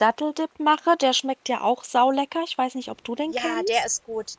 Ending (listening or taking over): taking over